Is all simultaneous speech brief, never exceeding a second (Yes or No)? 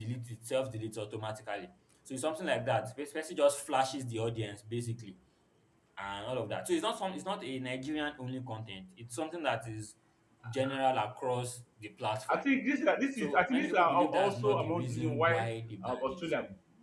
No